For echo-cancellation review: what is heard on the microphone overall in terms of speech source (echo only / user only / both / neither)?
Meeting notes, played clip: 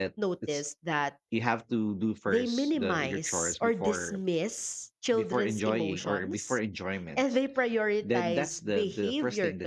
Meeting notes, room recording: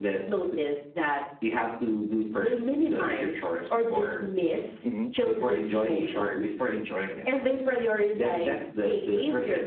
both